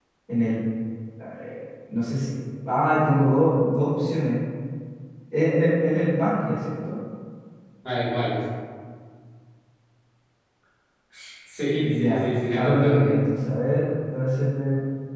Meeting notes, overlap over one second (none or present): present